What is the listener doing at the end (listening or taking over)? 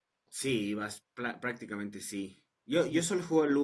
listening